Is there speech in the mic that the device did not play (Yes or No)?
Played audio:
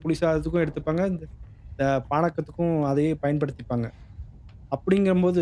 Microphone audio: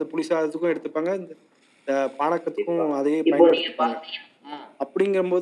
Yes